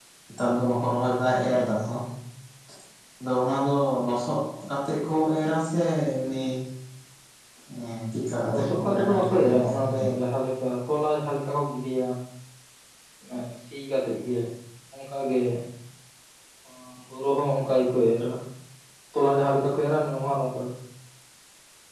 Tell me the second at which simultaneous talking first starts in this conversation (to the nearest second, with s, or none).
9 s